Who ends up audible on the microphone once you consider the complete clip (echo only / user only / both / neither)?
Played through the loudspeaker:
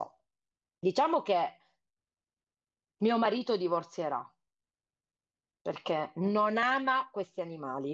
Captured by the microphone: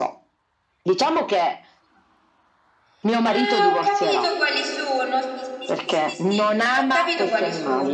both